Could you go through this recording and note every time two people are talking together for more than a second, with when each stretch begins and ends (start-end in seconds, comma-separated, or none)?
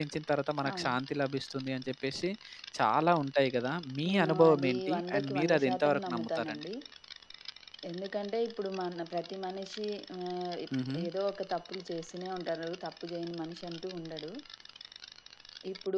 4.1-6.6